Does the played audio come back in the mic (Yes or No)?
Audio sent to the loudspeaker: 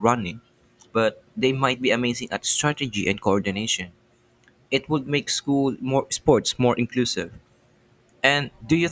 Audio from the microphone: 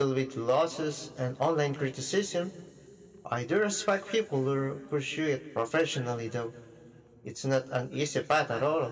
No